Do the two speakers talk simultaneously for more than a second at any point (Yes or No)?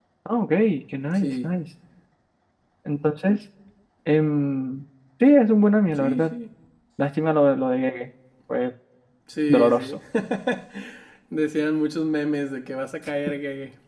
No